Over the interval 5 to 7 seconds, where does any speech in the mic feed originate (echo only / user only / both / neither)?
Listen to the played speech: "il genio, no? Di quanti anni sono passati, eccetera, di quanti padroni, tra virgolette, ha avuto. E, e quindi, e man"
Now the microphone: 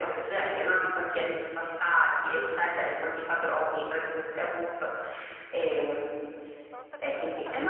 both